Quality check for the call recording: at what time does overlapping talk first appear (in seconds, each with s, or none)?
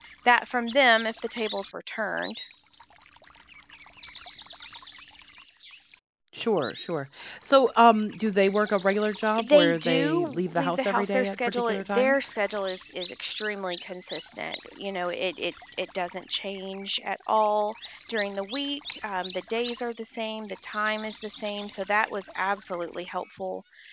9.4 s